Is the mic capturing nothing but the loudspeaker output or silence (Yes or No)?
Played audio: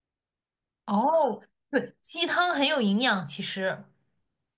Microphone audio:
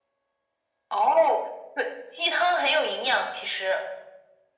Yes